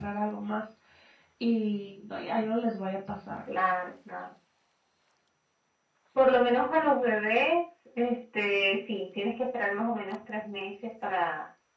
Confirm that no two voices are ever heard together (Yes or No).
Yes